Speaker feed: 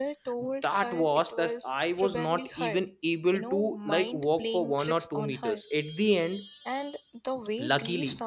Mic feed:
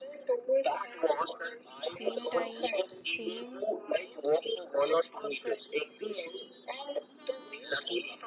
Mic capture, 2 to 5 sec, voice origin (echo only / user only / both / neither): both